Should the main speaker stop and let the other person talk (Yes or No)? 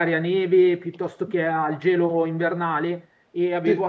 No